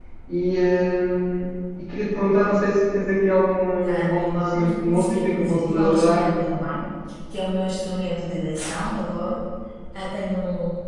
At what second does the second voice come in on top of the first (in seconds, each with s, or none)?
3.8 s